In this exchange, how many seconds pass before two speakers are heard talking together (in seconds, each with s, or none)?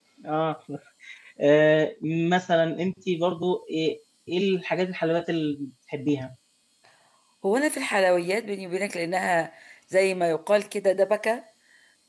none